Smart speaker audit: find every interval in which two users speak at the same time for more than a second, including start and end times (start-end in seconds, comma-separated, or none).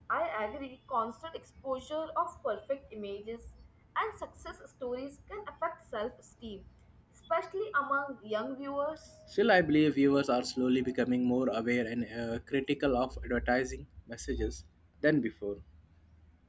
none